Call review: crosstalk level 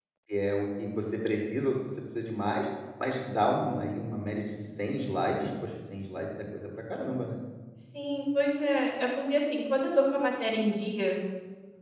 none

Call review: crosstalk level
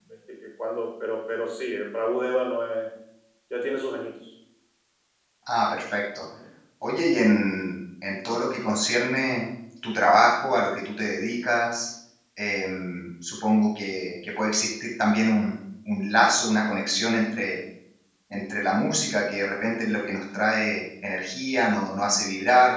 none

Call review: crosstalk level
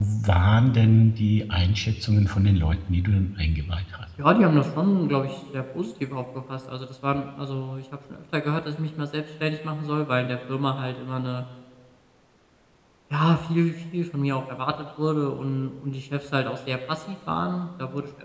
none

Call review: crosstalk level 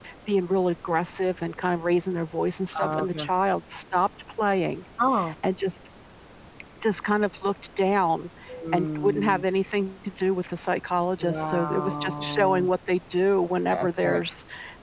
present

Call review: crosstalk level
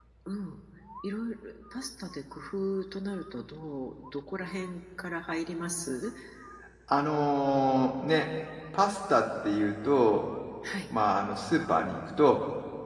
none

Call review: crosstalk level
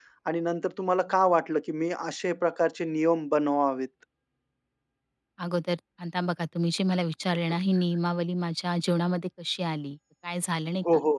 none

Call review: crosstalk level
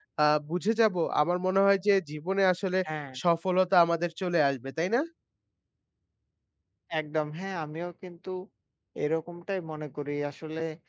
none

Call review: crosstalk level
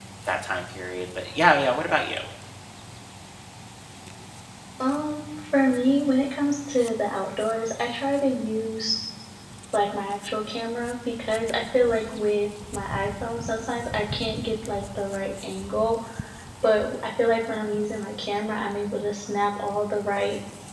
none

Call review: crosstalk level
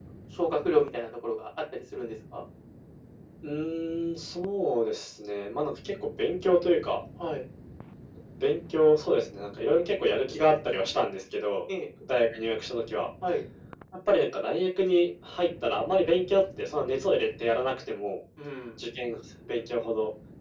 none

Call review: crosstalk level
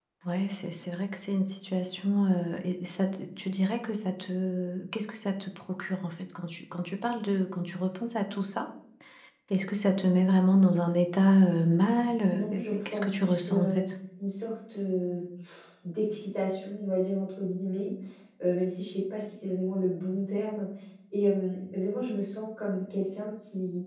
present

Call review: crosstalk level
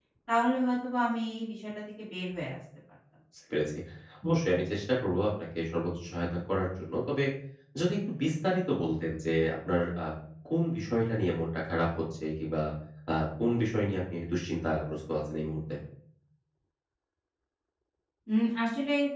none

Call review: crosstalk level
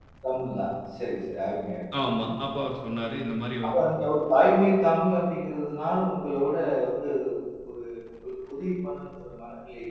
none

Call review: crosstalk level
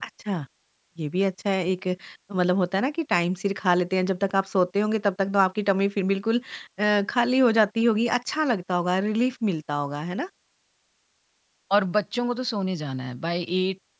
none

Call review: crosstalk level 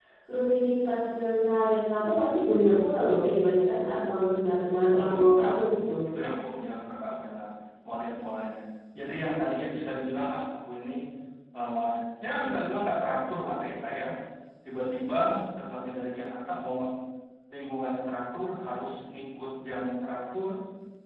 present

